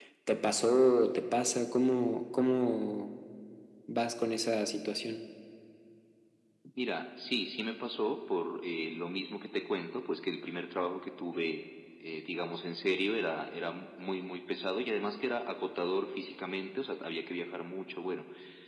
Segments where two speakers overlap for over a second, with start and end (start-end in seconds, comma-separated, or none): none